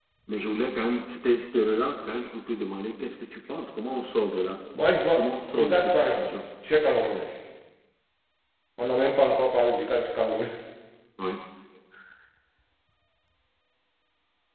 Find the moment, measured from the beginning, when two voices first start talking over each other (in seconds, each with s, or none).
5.2 s